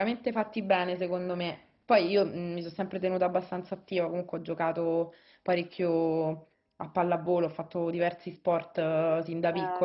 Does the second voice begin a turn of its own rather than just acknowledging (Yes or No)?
No